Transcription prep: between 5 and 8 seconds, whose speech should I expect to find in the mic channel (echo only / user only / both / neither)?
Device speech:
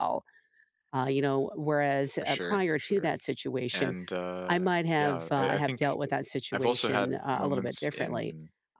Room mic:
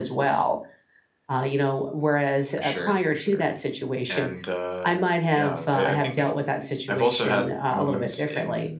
echo only